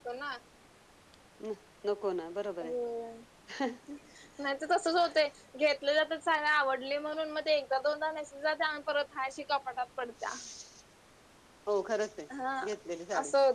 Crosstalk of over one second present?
No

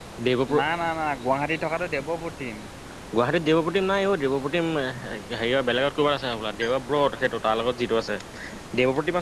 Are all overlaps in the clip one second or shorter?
Yes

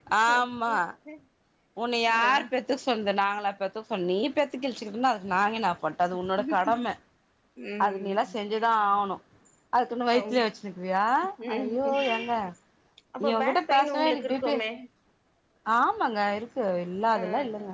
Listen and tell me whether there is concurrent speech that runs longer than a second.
Yes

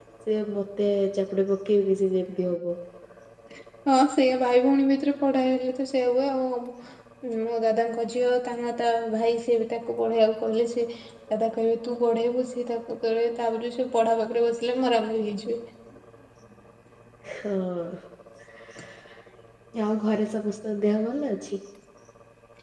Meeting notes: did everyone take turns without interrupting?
Yes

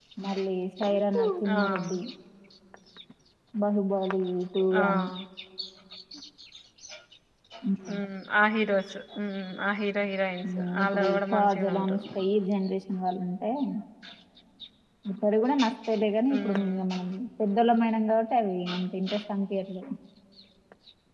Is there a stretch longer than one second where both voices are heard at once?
Yes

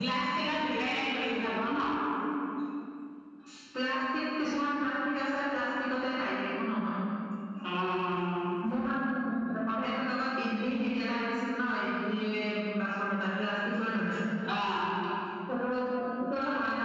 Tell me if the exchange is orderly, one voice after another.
Yes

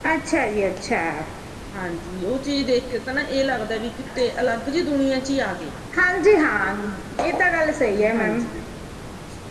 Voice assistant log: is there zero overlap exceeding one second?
Yes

